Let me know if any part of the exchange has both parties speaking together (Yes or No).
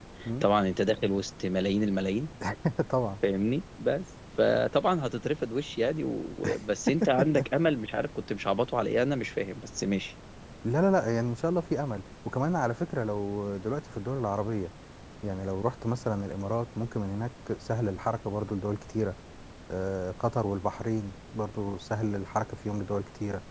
No